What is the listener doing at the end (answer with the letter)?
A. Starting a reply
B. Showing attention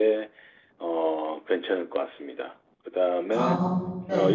B